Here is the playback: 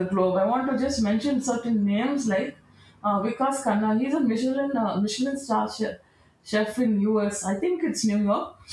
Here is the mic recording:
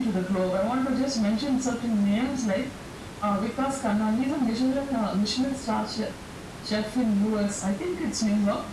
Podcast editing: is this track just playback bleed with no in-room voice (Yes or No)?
Yes